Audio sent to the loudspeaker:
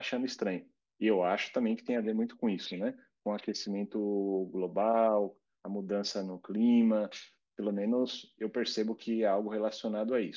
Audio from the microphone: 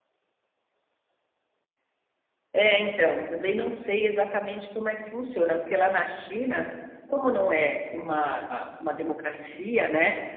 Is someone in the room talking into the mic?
Yes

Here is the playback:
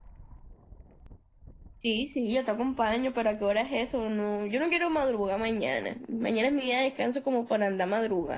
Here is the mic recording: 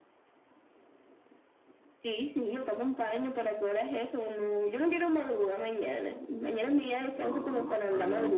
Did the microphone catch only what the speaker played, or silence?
No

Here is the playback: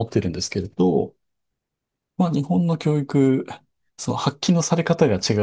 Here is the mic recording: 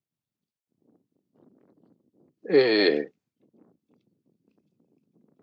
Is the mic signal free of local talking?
No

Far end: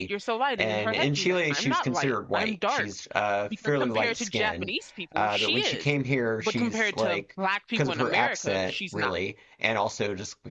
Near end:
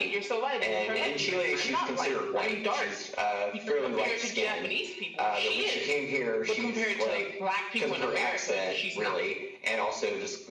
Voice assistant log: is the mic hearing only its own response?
Yes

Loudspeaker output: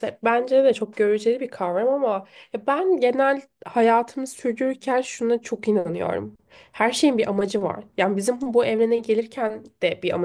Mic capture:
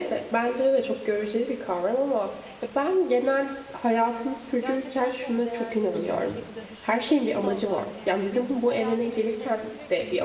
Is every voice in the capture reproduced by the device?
No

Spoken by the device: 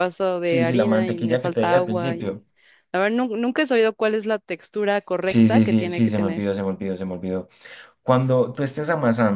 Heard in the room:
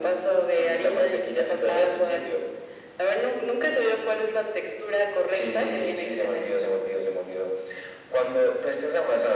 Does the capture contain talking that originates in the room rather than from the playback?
No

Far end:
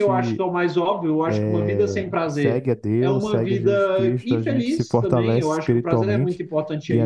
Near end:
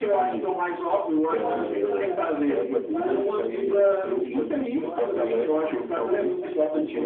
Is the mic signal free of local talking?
No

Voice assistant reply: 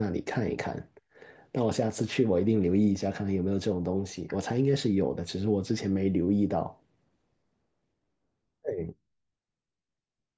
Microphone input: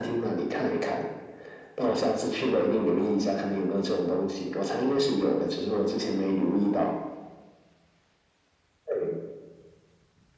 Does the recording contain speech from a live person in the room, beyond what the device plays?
No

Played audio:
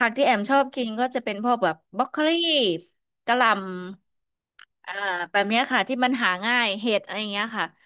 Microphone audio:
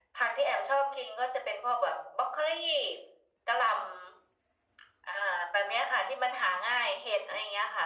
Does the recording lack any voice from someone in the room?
Yes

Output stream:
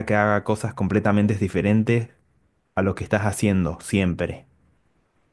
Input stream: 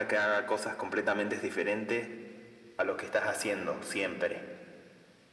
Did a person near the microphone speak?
No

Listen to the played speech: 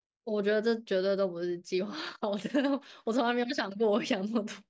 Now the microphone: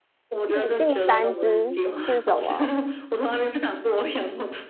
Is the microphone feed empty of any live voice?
No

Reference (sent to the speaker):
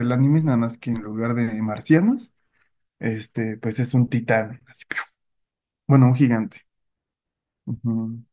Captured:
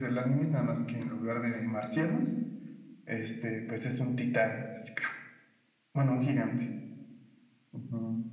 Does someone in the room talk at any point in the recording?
No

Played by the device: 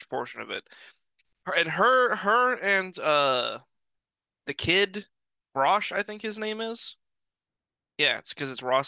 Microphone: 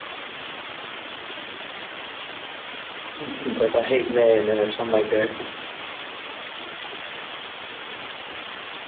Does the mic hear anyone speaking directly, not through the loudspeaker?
Yes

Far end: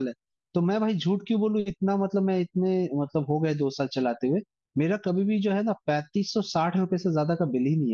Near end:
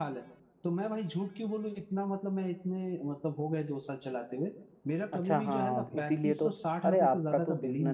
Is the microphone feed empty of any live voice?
No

